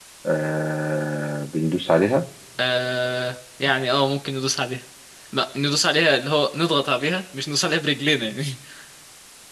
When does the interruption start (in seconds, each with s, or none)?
none